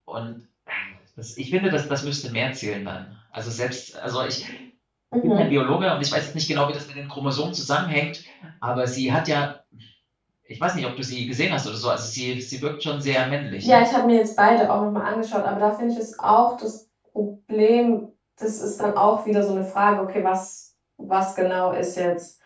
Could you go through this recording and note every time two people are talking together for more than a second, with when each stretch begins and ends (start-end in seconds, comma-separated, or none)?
none